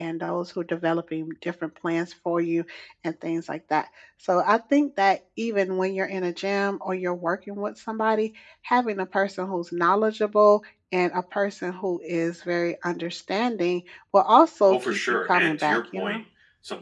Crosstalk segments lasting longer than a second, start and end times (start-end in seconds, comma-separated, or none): 14.7-16.2